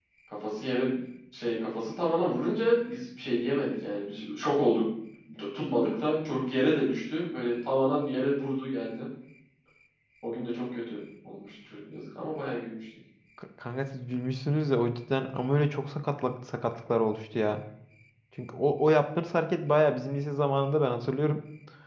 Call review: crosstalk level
none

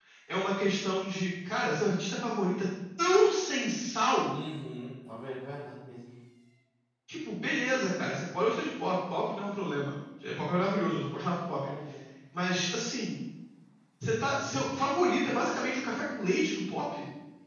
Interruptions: none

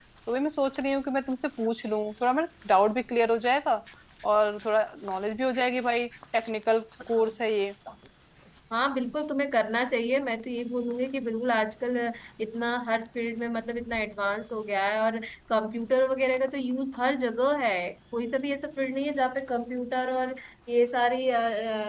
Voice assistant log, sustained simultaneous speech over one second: none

